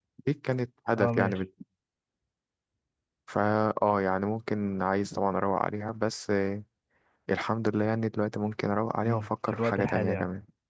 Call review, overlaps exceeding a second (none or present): present